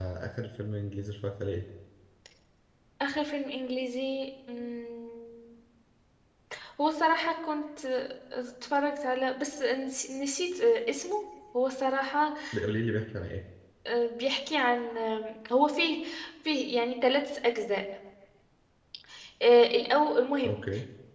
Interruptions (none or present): none